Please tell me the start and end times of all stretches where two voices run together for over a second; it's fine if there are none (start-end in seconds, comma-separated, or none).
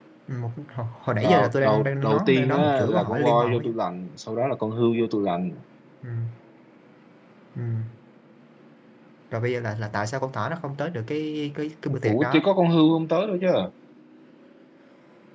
1.2-3.7